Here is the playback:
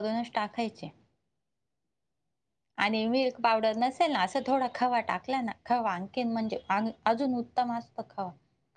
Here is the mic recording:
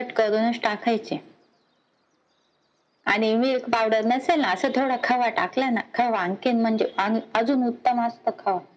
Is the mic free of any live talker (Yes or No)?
Yes